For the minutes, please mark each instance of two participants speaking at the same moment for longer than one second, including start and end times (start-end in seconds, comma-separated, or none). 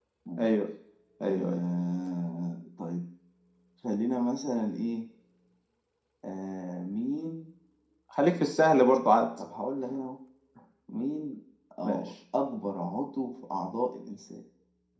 none